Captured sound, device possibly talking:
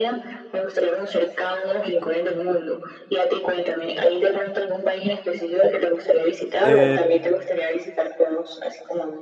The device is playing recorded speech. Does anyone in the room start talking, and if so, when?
6.6 s

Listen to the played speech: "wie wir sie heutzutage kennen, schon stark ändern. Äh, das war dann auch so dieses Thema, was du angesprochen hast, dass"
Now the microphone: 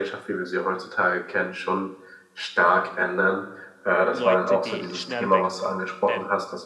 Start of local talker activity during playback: 4.1 s

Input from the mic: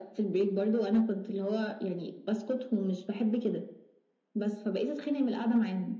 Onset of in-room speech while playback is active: none

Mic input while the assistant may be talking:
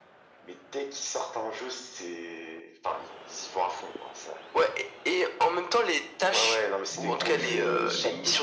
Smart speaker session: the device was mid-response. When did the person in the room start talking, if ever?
6.9 s

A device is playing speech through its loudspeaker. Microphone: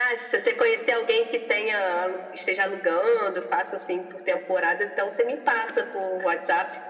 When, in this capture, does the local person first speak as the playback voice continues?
none

